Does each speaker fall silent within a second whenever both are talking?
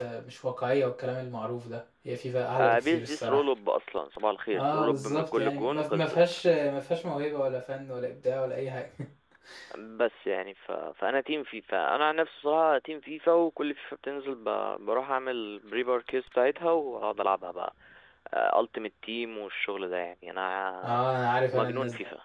No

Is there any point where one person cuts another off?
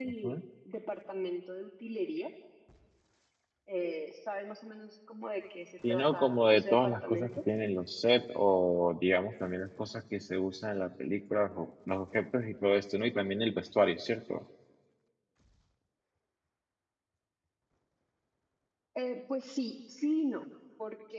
Yes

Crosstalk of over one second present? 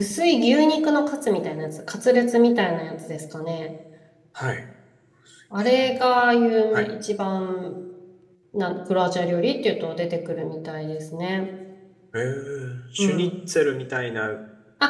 No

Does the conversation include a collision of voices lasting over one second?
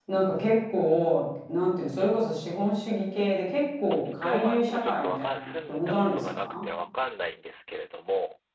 Yes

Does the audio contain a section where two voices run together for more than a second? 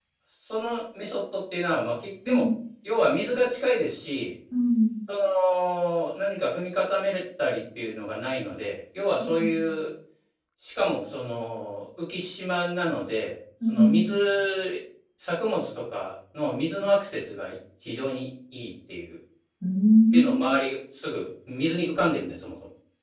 No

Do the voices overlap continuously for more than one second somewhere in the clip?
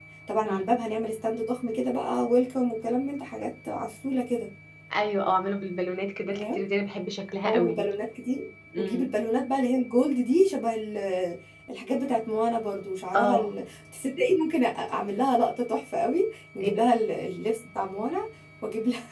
No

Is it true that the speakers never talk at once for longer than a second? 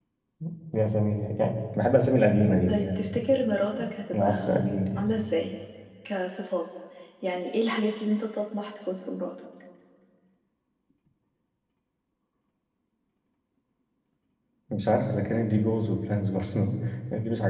Yes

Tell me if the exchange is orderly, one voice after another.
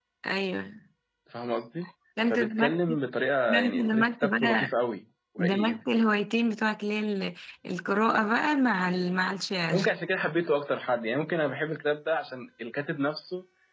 No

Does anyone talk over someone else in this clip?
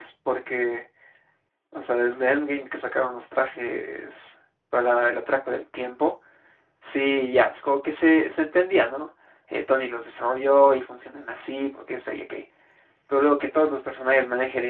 No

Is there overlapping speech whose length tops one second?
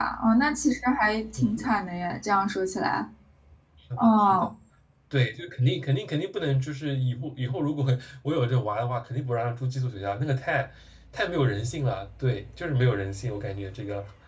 No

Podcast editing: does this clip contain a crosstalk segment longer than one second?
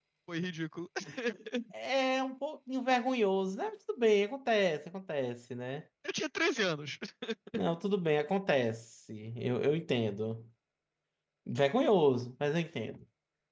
No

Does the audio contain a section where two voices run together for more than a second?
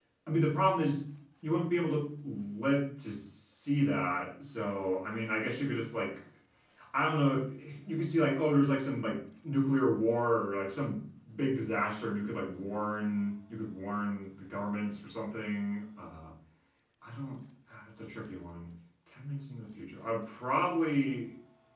No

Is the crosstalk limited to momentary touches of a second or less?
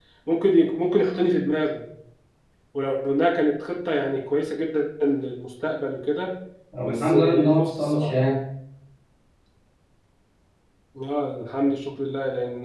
No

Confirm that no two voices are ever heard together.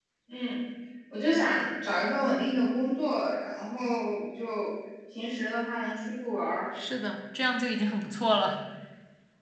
Yes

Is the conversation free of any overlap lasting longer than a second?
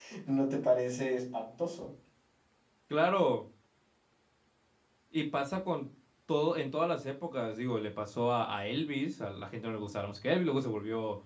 Yes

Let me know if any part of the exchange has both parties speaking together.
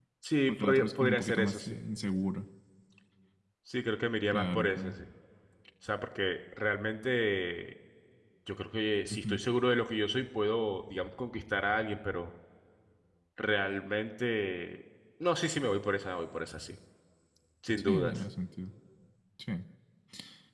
Yes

